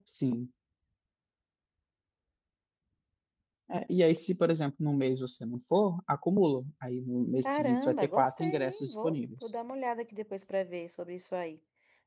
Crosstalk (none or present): present